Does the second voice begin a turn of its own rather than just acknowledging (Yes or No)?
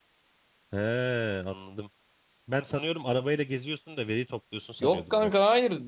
Yes